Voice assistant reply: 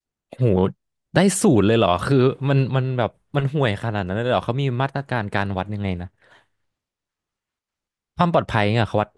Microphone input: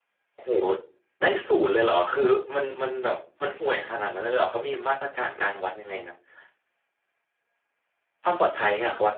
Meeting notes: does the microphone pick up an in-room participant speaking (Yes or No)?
No